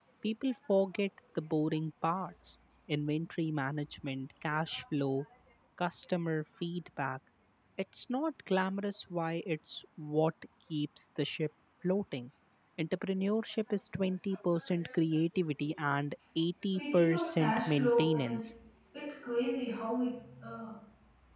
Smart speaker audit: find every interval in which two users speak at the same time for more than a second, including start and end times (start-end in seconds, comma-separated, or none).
16.8-18.5